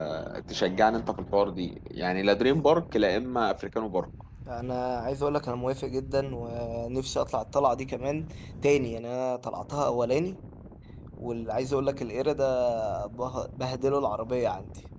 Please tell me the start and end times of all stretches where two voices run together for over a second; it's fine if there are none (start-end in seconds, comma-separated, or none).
none